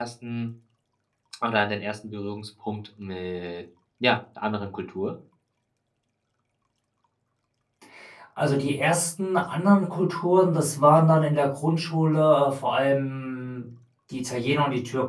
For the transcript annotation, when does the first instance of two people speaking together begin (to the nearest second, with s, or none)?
none